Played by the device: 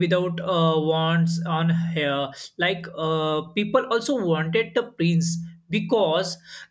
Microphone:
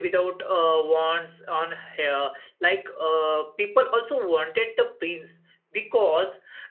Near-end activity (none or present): none